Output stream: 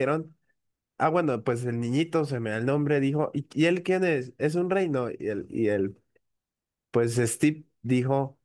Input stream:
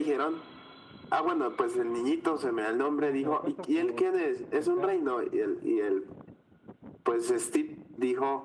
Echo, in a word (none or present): present